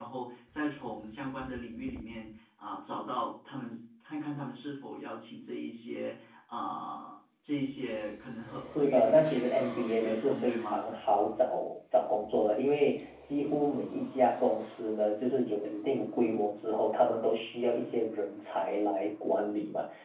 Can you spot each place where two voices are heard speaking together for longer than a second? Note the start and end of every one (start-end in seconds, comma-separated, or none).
8.7-10.9